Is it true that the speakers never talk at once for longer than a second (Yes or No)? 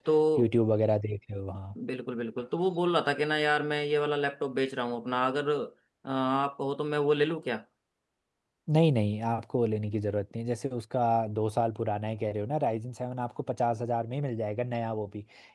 Yes